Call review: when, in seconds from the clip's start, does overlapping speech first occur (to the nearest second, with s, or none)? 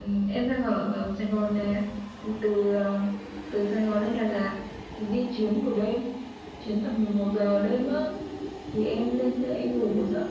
none